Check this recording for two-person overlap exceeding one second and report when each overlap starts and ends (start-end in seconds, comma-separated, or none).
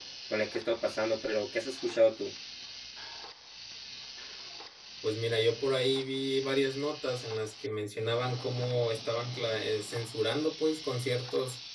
none